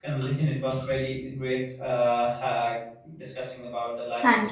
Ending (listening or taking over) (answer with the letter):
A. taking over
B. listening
A